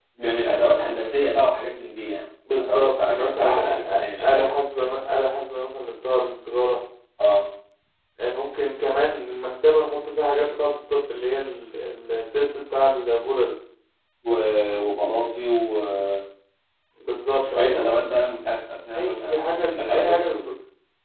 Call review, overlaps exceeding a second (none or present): present